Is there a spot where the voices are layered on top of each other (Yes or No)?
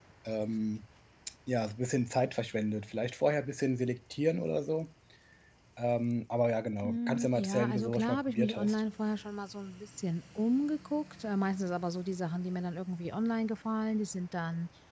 Yes